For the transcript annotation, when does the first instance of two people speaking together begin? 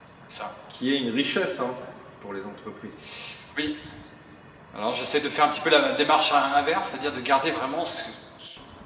none

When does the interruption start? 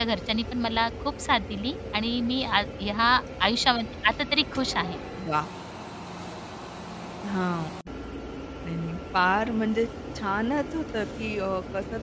none

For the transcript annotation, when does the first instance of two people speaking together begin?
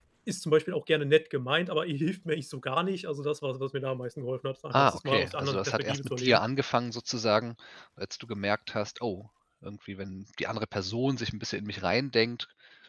4.7 s

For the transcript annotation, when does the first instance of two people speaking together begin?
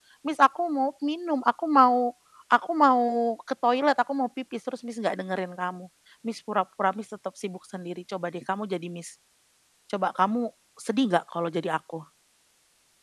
none

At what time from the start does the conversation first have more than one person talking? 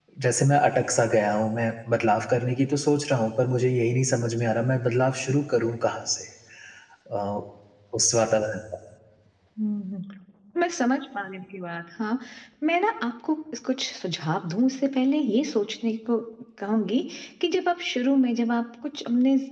none

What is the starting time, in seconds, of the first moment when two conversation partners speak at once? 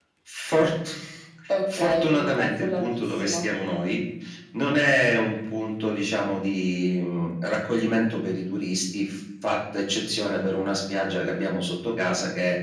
1.7 s

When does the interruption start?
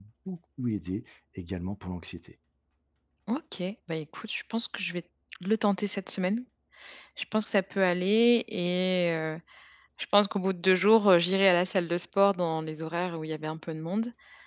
none

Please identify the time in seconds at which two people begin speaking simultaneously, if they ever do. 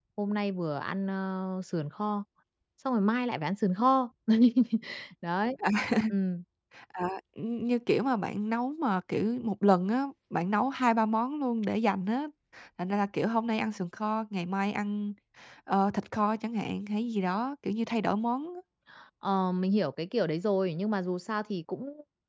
none

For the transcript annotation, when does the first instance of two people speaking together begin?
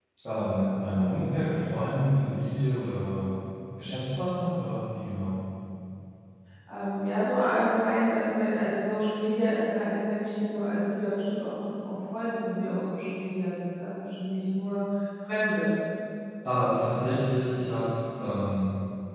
none

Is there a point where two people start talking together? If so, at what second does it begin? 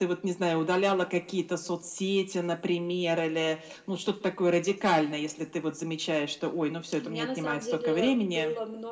7.0 s

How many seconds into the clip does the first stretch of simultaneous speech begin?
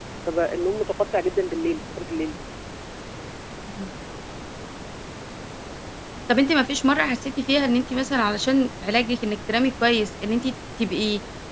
none

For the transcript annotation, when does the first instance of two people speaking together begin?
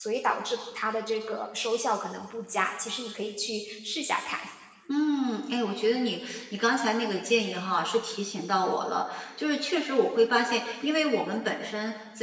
none

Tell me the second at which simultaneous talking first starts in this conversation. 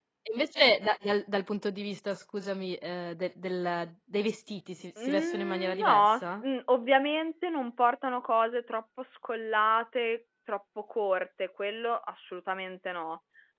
5.0 s

